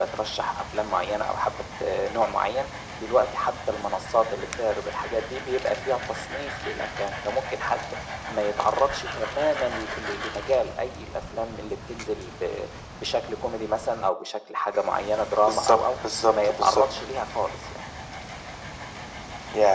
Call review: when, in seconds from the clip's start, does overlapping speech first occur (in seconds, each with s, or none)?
15.4 s